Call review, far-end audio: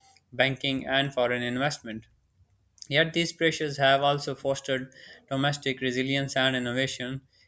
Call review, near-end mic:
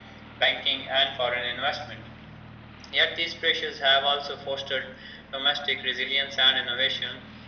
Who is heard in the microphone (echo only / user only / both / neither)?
echo only